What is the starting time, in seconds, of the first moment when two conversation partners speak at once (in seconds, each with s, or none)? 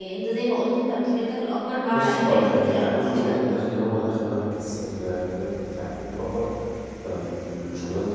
1.9 s